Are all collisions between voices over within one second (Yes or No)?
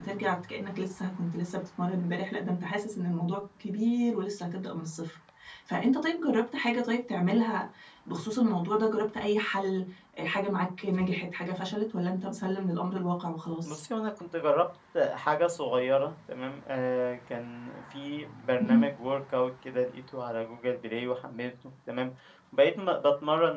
Yes